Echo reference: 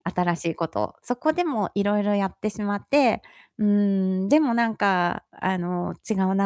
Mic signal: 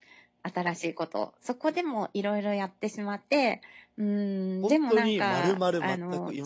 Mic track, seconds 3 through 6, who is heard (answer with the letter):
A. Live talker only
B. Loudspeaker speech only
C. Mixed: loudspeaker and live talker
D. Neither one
C